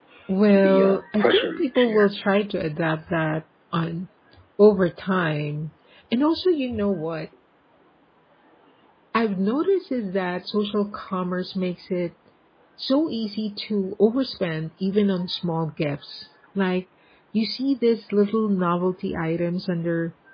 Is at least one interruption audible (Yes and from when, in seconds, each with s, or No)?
Yes, from 0.5 s